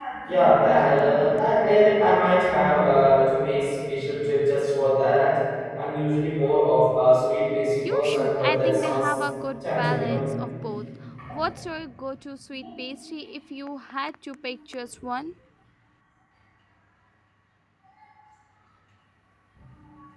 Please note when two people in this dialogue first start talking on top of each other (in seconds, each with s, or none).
7.8 s